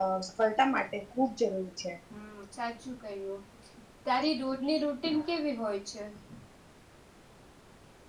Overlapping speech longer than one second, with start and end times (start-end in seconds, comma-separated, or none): none